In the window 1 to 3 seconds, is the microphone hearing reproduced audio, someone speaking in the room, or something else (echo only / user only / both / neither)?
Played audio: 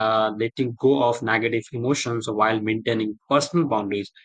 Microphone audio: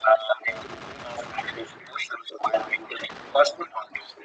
echo only